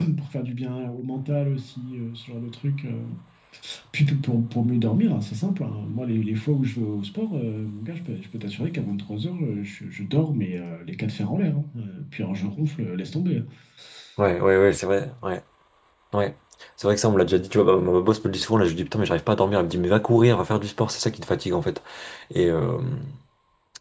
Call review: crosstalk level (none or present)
none